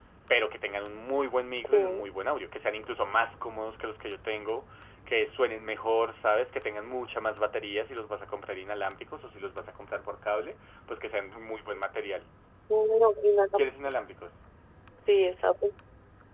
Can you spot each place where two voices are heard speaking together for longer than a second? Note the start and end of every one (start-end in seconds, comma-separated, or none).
none